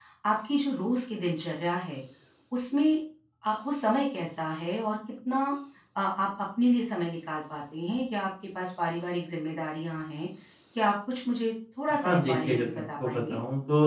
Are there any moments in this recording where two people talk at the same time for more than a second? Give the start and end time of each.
12.0-13.4

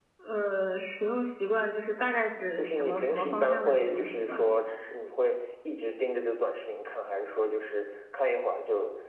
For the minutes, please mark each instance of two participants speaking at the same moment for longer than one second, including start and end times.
2.6-4.5

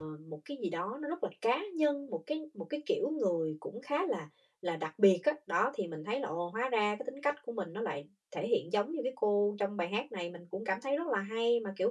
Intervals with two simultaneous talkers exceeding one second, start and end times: none

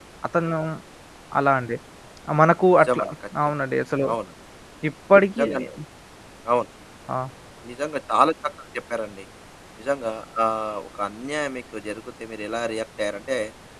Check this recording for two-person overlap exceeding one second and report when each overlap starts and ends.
none

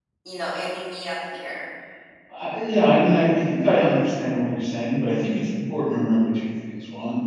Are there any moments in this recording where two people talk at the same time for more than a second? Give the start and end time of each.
none

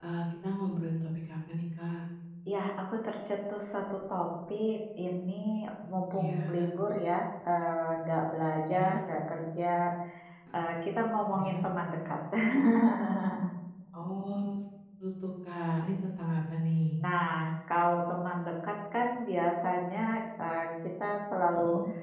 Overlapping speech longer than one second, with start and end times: none

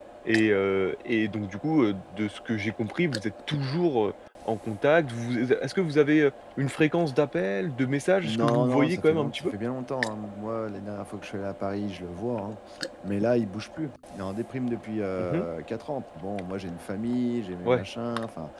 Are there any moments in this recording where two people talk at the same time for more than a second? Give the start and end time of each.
8.2-9.5

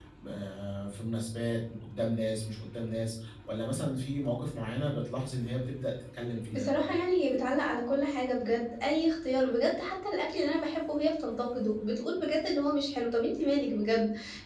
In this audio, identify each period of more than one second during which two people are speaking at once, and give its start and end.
none

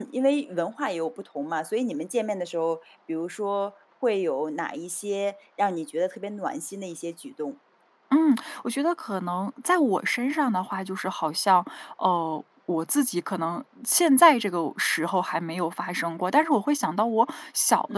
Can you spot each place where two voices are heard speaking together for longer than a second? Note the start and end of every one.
none

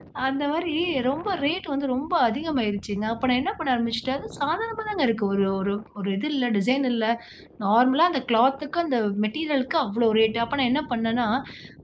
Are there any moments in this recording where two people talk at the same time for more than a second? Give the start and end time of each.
none

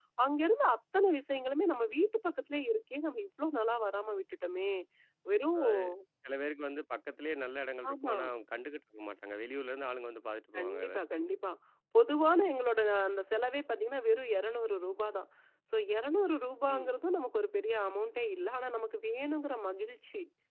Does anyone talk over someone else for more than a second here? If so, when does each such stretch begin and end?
none

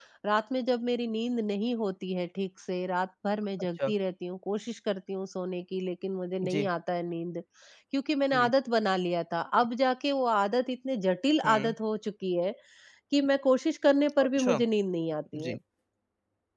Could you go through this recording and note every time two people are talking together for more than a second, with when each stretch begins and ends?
none

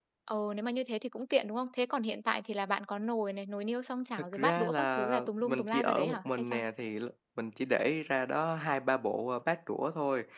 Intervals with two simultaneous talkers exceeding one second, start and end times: 4.2-6.6

